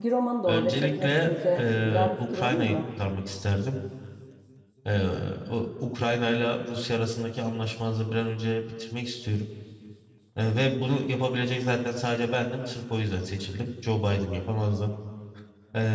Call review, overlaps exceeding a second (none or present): present